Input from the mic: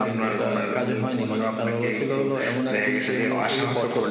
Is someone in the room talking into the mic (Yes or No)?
No